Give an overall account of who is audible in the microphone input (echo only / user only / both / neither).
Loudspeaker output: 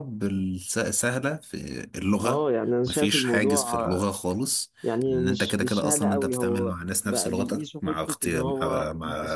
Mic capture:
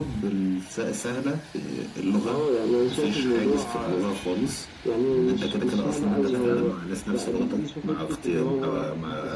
both